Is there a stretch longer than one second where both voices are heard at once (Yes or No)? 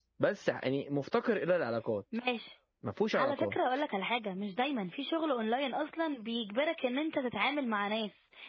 No